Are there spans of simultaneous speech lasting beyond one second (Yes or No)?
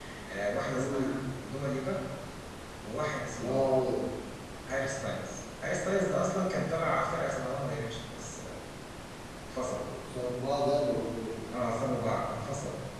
No